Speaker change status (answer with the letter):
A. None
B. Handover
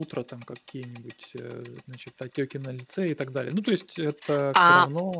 B